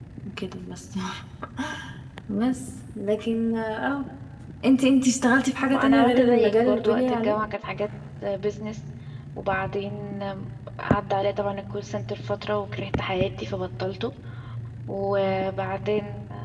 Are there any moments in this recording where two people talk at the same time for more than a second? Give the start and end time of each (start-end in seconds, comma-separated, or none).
5.7-7.4